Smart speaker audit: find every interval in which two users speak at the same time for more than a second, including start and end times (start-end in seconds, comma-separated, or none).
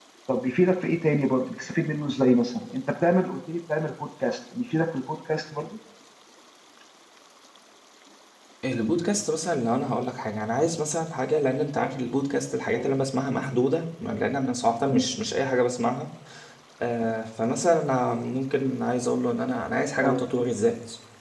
none